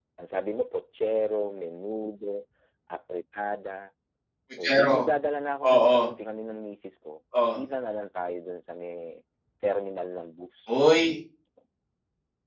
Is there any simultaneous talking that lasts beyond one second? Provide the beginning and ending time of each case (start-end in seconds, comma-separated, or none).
none